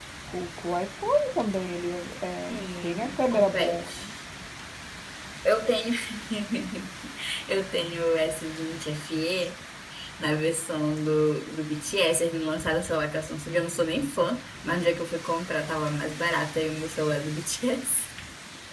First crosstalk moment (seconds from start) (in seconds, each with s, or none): 2.6 s